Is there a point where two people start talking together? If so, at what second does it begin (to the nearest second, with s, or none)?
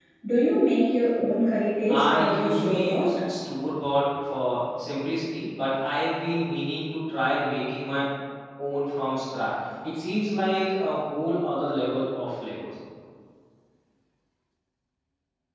2 s